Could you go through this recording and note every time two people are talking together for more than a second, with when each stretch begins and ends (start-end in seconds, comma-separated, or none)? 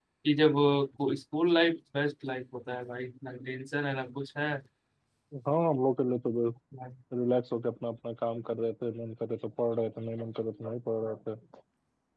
none